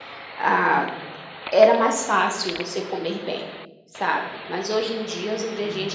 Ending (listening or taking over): listening